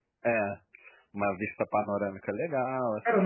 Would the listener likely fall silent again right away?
No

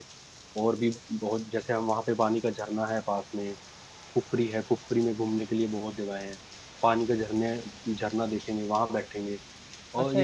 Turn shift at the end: Yes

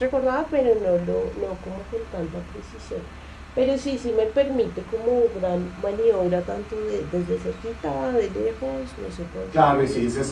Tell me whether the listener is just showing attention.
No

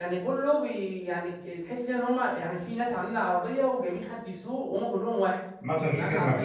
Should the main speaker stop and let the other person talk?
Yes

